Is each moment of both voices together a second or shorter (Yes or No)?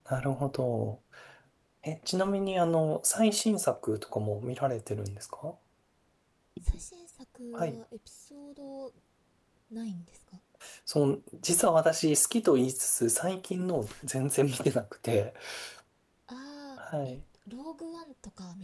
Yes